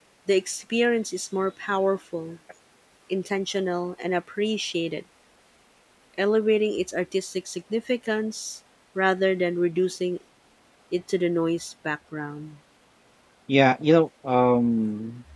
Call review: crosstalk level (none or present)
none